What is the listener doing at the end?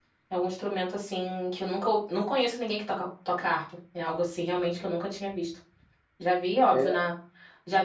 listening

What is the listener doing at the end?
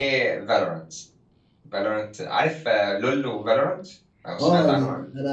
taking over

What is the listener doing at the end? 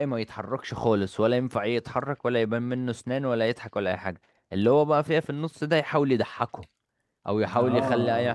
listening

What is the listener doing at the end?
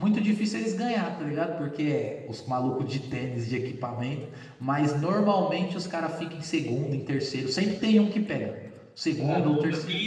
taking over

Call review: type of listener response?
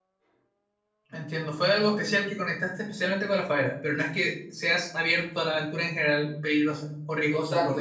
taking over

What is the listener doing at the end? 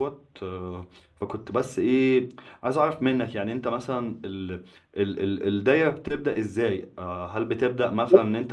listening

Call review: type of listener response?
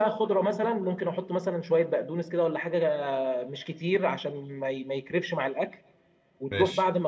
listening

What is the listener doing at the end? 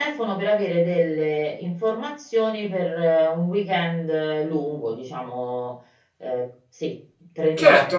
taking over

